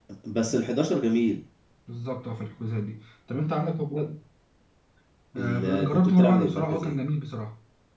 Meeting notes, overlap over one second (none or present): present